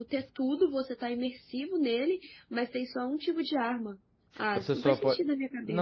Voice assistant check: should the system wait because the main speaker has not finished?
No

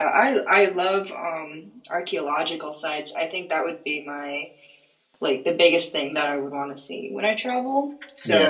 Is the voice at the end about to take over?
No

